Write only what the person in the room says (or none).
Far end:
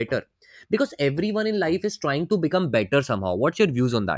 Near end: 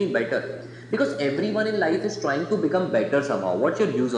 none